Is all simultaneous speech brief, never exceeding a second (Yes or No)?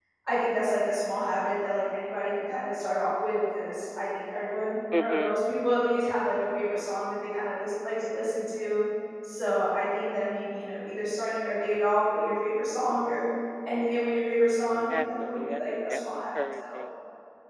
No